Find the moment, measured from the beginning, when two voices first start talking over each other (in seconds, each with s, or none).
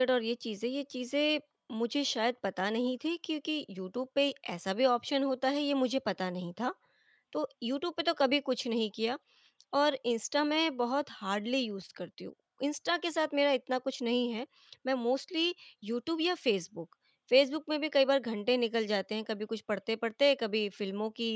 none